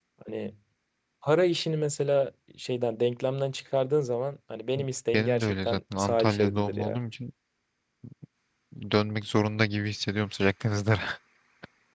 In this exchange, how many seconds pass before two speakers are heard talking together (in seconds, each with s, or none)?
5.1 s